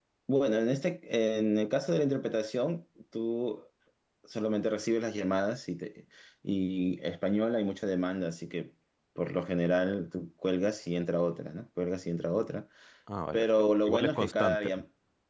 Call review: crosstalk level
present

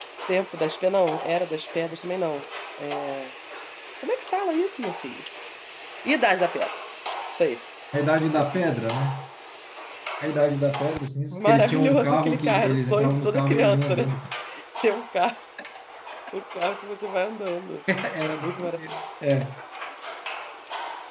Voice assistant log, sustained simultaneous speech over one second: present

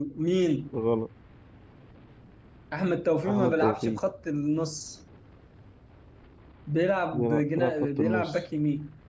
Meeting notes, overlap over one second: present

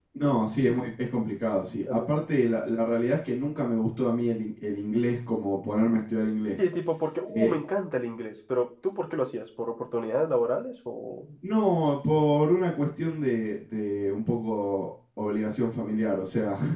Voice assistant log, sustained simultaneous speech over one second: none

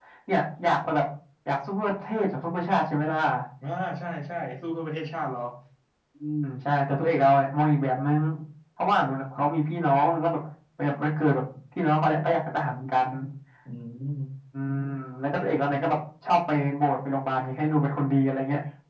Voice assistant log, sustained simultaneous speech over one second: none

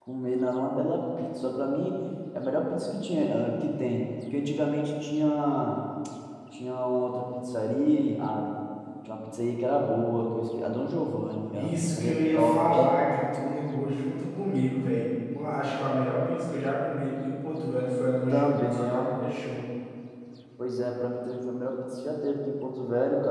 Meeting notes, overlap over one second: present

